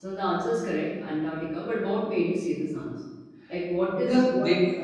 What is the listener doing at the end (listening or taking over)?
taking over